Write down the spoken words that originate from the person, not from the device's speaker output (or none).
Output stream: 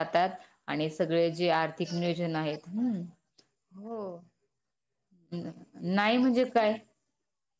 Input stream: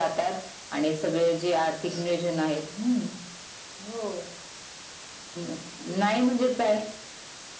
none